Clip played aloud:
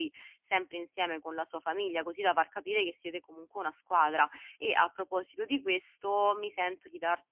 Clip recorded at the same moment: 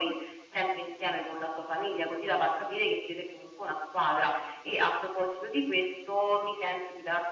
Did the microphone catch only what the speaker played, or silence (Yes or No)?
Yes